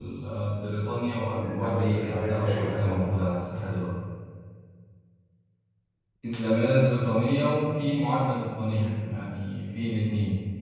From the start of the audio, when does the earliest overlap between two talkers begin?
1 s

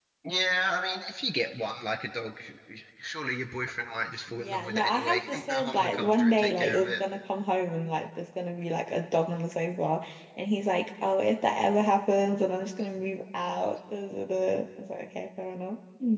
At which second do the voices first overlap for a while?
4 s

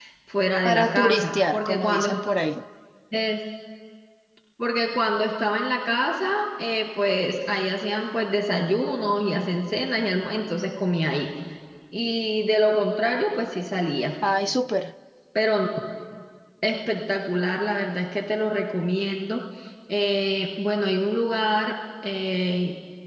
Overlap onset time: 1 s

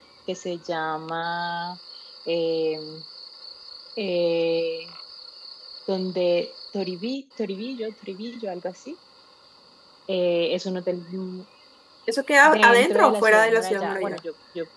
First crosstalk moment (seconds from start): 12 s

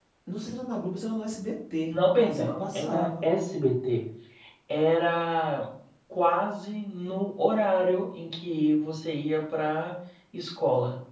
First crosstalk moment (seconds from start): 2 s

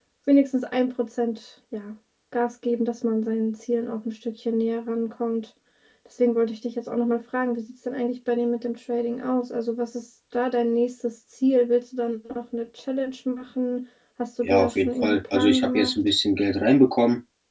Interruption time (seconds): 14 s

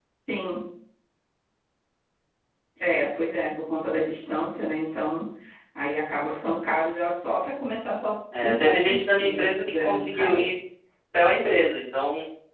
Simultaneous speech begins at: 8 s

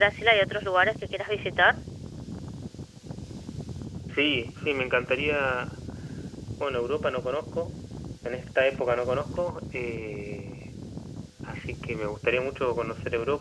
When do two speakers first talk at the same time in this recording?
none

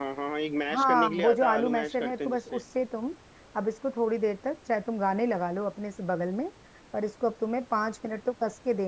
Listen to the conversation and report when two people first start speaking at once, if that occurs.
1 s

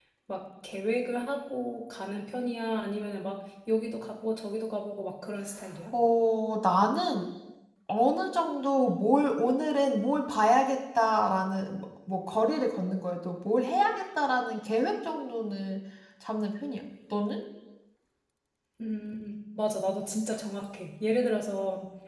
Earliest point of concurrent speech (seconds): none

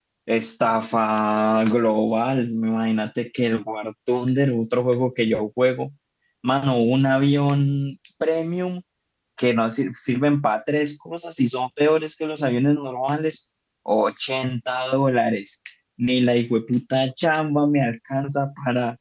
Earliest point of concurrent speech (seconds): none

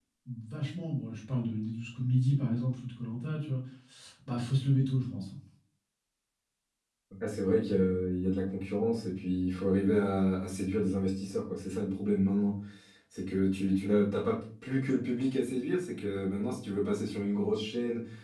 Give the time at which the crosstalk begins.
none

